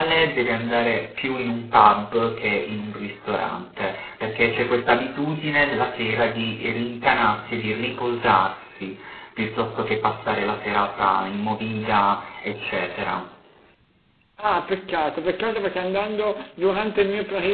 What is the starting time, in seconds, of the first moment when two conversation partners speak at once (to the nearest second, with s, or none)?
none